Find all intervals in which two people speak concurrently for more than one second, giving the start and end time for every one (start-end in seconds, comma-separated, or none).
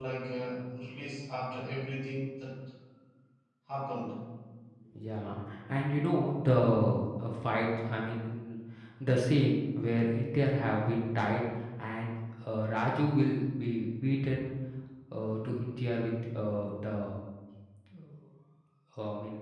none